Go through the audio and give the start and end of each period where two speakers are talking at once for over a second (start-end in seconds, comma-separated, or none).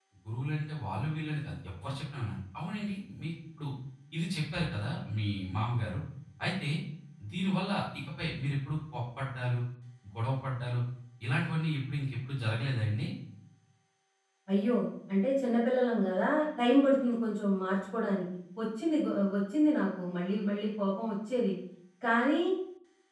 none